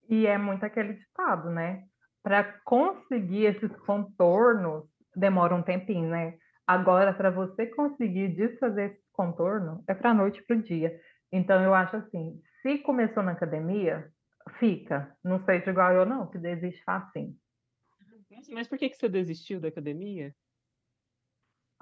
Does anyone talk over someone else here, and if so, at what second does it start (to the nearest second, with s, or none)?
none